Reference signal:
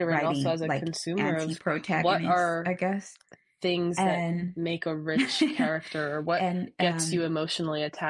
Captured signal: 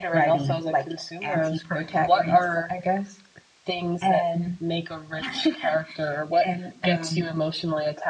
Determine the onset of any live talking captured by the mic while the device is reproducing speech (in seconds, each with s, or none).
none